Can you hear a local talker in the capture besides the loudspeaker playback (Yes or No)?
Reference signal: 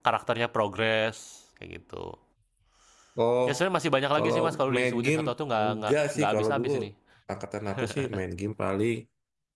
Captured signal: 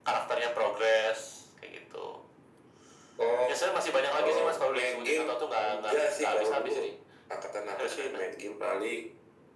No